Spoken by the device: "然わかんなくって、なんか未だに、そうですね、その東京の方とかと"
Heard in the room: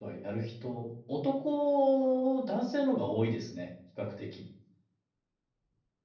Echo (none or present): none